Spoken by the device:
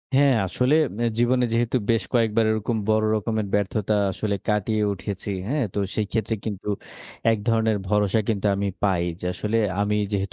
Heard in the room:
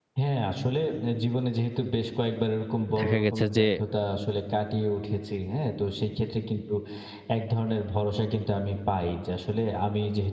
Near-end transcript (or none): দেখা গেছে যে